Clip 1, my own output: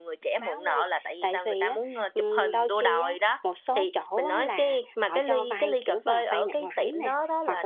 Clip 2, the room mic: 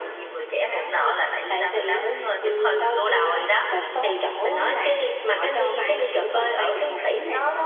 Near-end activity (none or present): none